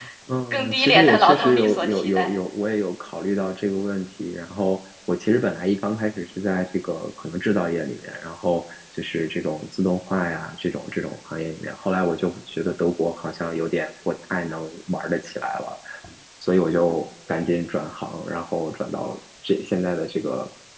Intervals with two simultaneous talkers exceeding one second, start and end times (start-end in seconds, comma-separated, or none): 0.5-2.4